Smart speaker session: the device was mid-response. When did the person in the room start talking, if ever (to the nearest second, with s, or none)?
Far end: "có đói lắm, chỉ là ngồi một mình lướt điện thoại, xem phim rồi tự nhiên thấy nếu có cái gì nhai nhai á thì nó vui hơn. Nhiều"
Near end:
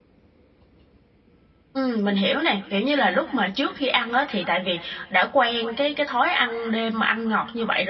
2 s